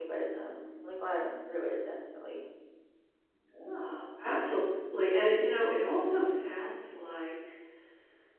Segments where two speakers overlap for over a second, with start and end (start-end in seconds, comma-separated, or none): none